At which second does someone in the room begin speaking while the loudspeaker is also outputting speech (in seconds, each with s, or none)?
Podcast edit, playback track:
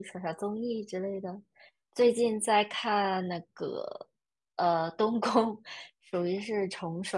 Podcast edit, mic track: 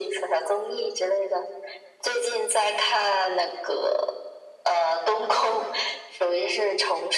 none